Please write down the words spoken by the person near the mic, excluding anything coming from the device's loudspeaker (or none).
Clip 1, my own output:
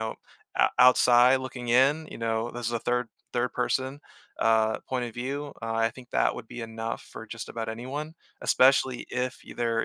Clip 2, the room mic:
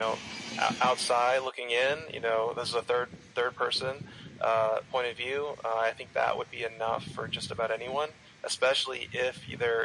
none